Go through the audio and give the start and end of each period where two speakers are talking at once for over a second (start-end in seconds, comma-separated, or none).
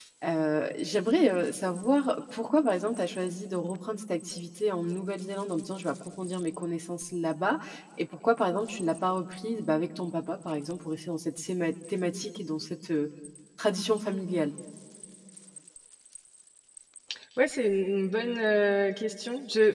none